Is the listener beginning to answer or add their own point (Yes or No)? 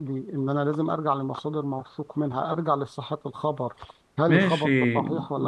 Yes